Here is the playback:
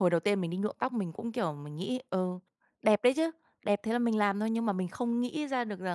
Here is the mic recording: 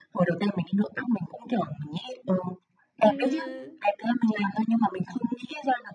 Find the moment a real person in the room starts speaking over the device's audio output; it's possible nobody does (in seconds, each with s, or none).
3.0 s